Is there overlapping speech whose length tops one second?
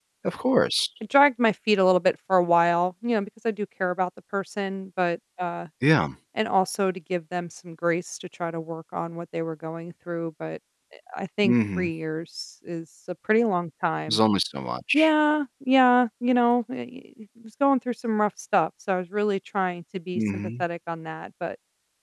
No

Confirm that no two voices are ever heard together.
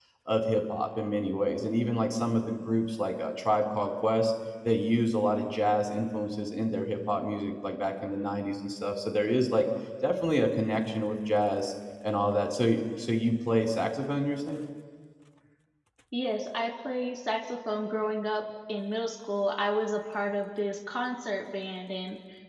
Yes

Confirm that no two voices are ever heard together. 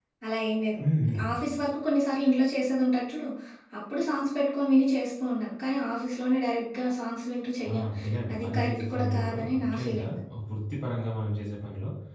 No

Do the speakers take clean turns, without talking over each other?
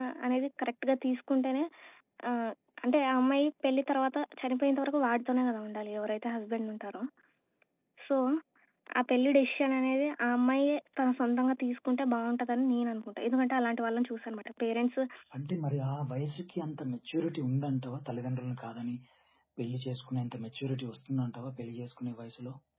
Yes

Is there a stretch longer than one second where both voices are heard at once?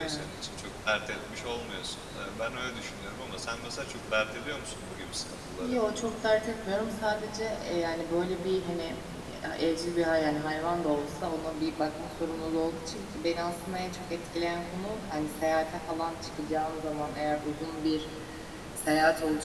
No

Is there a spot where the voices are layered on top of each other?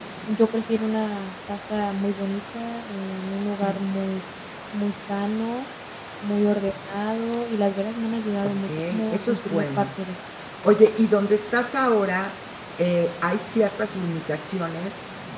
Yes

